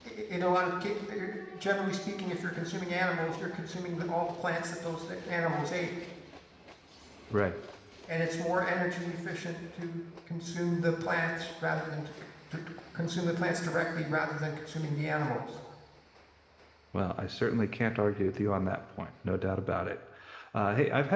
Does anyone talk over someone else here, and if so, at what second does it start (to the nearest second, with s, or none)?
none